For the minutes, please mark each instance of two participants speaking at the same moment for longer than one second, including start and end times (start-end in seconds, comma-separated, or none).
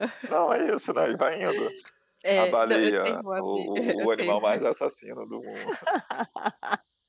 2.4-4.4